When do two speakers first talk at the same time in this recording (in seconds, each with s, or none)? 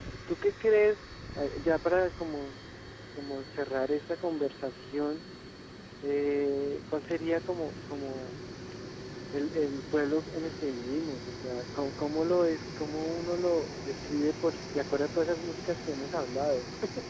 none